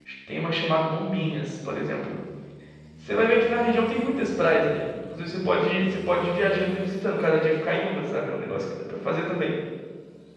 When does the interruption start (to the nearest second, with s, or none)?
none